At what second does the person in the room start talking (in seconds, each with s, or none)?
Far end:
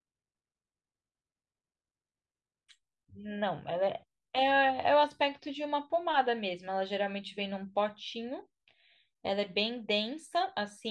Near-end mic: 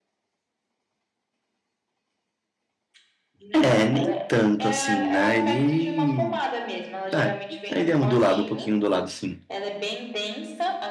3.5 s